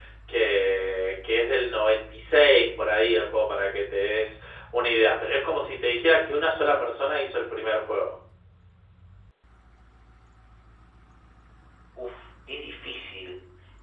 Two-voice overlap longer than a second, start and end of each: none

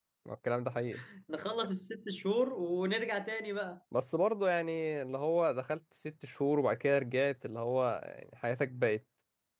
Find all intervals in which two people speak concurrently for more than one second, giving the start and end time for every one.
none

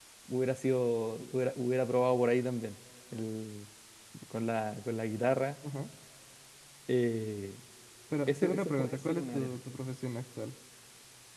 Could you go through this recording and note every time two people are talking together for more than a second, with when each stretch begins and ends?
8.3-9.5

